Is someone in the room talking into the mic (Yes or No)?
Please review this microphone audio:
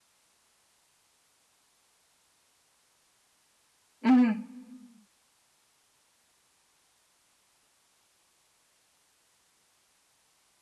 Yes